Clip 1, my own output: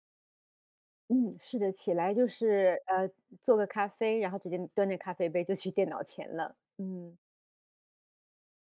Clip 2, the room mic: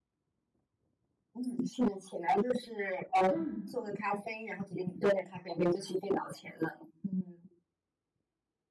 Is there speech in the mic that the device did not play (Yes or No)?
Yes